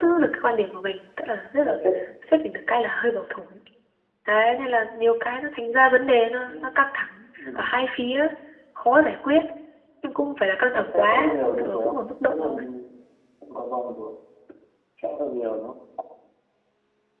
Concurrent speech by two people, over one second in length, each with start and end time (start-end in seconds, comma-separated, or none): 10.7-12.6